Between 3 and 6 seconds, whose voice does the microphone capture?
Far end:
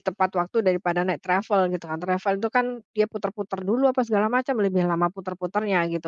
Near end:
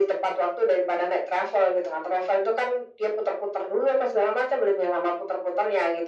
echo only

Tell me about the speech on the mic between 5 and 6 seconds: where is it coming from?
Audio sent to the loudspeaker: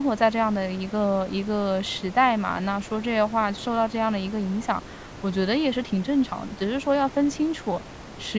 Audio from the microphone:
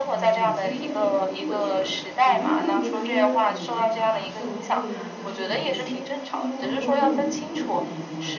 both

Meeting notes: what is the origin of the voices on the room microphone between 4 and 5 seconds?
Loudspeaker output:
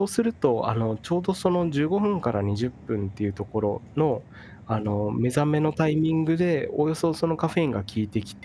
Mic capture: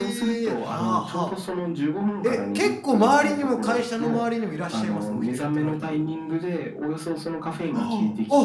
both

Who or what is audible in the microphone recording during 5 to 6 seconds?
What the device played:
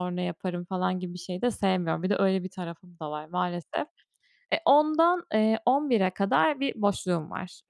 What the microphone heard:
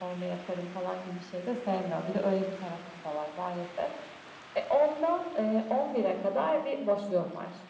echo only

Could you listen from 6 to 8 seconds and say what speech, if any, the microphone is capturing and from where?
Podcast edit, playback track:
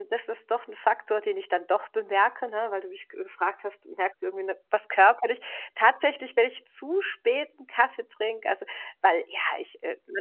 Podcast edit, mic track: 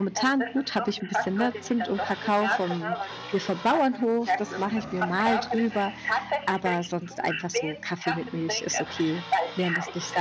both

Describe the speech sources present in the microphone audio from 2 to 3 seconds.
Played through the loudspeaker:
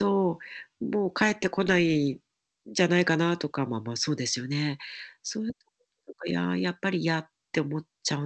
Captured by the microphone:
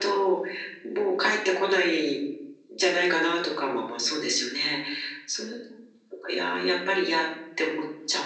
echo only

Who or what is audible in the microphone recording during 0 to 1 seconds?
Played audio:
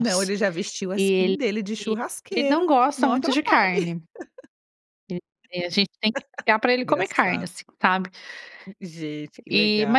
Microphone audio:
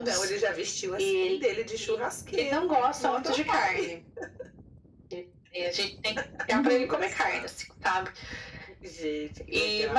echo only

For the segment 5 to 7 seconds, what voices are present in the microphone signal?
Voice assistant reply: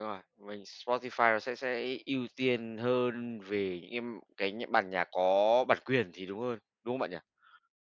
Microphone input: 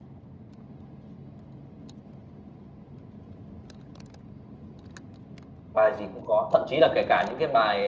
user only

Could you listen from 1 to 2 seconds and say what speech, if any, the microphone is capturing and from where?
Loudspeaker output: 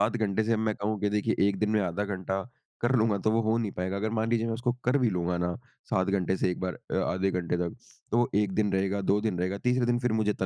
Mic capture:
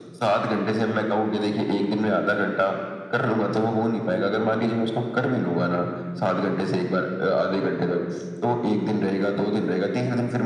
echo only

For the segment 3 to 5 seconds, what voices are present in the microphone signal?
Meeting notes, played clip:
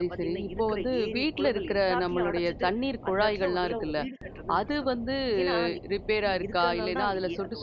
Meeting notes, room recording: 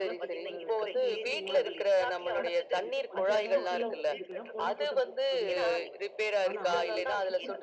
both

